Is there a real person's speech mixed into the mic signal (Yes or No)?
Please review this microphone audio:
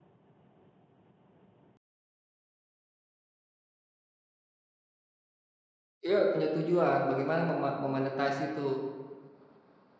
Yes